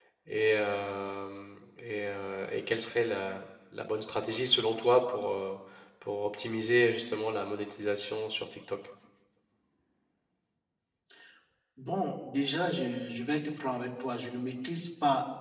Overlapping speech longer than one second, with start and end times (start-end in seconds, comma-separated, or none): none